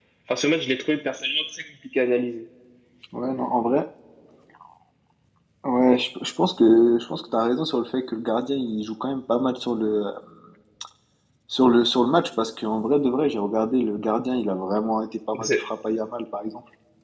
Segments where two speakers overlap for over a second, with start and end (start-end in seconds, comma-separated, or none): none